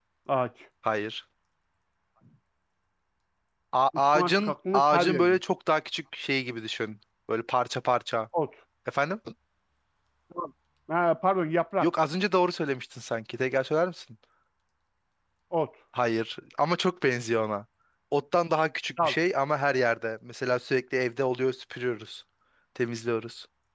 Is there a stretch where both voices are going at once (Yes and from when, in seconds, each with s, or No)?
Yes, from 4.1 s